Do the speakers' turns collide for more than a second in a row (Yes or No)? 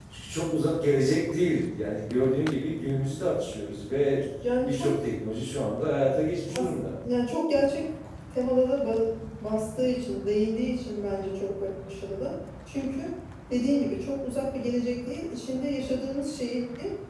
No